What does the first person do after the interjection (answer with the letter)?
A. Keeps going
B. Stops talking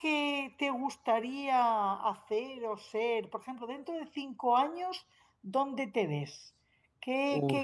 A